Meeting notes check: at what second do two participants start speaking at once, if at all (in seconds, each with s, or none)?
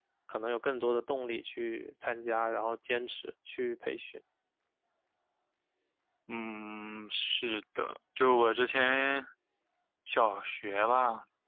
none